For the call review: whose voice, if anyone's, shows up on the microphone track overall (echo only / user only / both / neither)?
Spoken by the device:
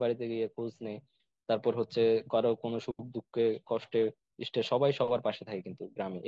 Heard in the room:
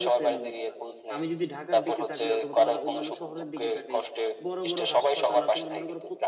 both